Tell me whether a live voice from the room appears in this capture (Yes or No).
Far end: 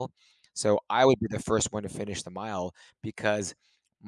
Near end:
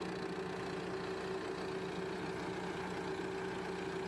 No